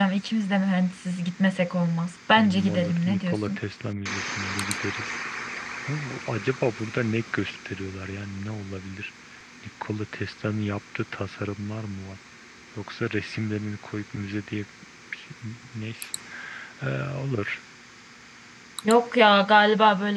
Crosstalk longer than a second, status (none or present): present